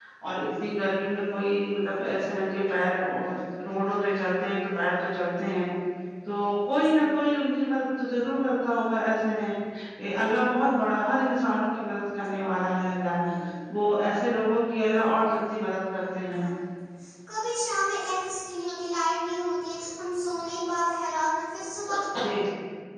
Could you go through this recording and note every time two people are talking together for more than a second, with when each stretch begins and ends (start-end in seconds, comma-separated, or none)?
none